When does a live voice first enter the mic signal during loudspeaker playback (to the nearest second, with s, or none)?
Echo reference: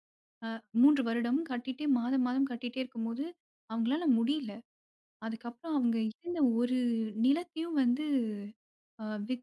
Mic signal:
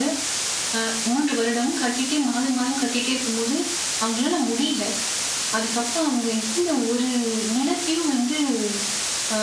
none